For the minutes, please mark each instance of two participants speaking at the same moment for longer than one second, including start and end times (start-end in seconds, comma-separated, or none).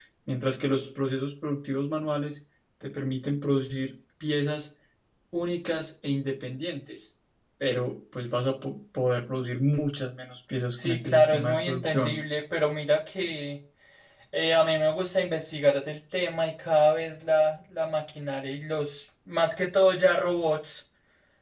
10.7-12.1